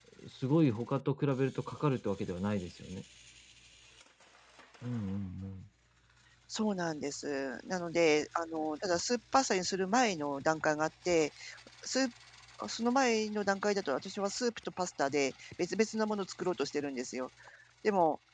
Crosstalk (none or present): none